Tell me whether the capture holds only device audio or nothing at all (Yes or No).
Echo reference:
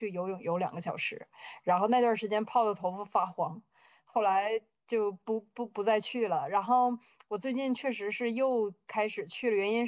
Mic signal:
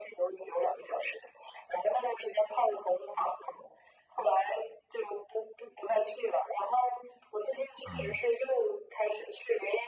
No